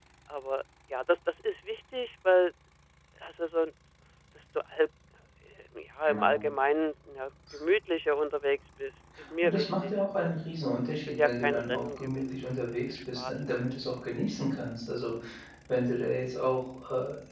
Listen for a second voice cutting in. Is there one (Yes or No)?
Yes